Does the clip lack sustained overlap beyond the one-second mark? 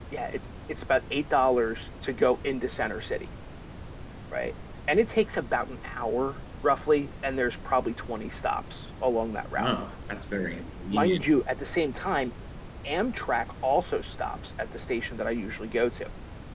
Yes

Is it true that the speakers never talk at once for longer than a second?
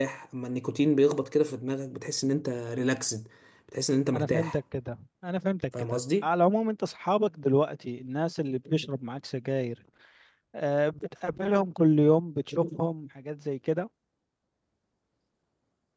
Yes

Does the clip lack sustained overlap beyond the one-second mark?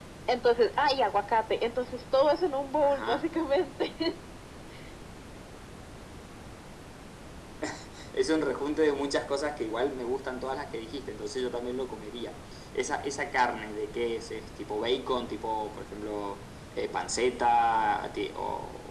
Yes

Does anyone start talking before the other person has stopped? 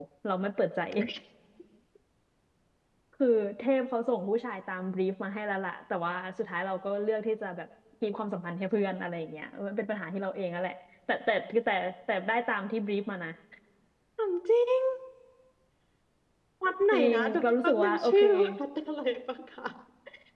Yes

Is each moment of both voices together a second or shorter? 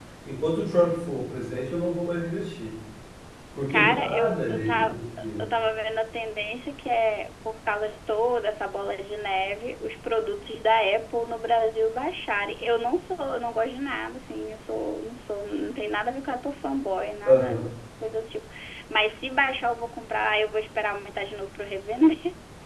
No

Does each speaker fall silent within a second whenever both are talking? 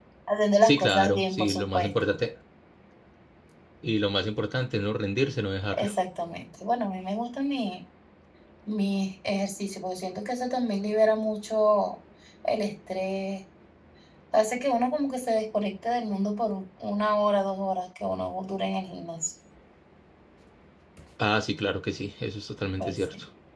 No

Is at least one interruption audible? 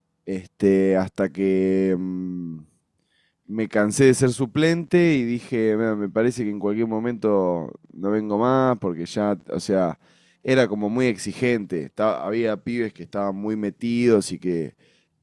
No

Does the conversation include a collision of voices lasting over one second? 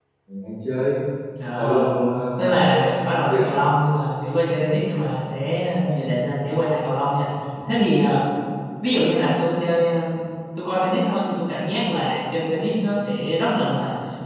Yes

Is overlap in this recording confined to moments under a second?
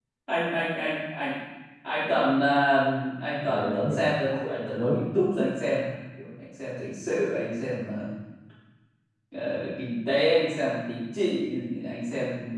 No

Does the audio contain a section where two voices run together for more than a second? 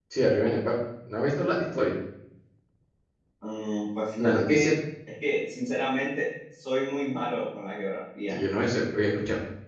No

